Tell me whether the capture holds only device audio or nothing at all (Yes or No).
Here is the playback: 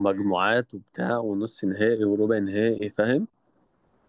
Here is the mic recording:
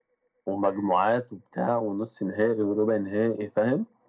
Yes